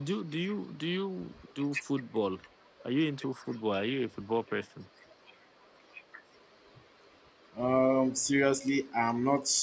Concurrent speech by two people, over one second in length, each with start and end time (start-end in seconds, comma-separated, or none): none